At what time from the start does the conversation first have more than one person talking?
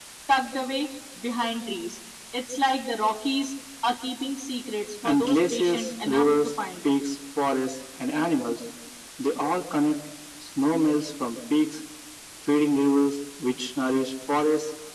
5.0 s

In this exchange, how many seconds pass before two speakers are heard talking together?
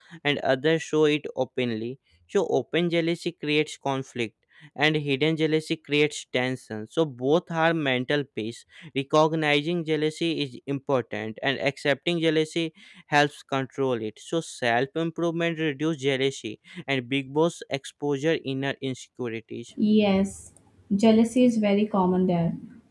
none

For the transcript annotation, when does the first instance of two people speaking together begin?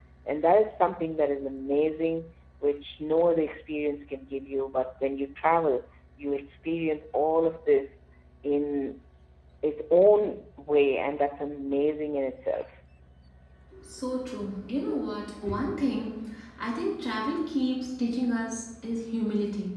none

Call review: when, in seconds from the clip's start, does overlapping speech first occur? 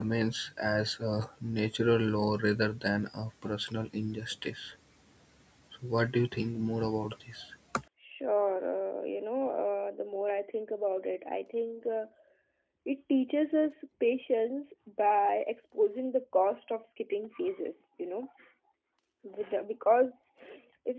none

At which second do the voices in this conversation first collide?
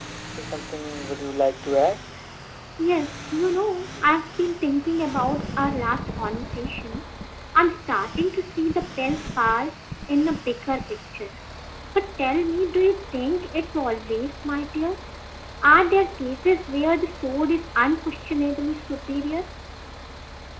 none

